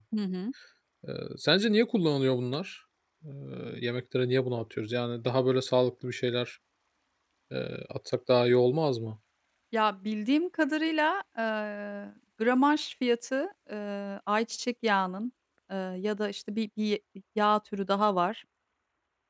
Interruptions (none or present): none